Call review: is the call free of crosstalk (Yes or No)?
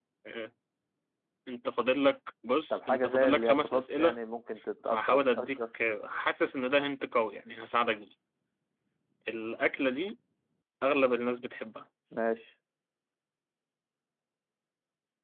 No